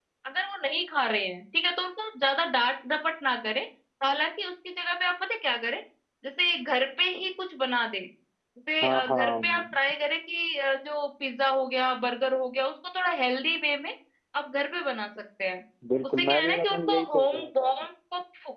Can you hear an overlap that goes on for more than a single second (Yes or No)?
Yes